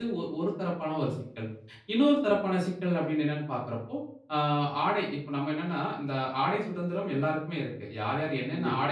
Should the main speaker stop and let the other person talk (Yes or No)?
No